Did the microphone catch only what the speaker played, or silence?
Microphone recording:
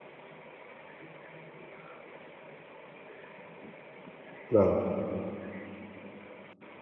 No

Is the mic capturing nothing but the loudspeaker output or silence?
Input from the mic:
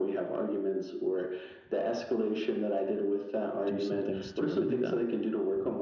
No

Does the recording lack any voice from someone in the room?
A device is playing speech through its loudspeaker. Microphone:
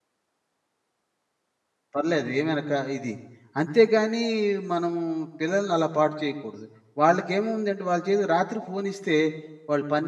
No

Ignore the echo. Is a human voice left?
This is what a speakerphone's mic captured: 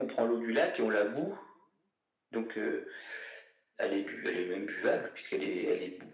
No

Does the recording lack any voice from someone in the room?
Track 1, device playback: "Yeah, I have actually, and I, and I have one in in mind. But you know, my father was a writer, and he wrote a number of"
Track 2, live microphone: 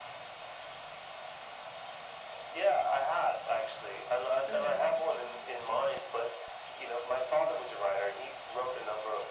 No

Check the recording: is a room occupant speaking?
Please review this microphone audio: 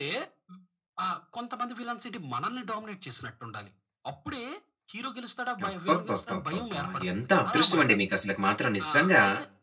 Yes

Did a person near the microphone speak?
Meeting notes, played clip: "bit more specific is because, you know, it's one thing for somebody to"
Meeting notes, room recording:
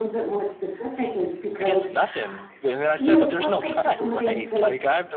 Yes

